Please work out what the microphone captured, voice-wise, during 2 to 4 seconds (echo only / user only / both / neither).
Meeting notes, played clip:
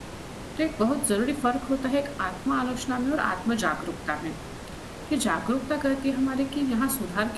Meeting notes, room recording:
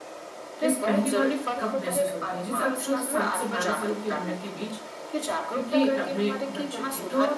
both